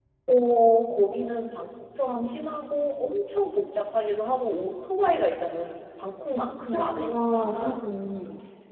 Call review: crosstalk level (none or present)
present